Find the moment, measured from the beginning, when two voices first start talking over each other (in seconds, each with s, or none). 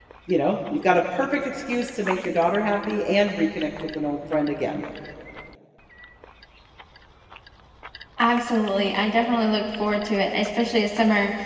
none